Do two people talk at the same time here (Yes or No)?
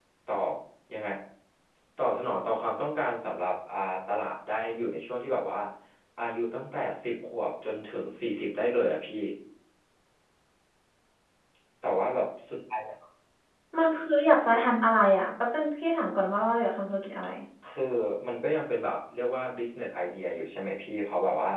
No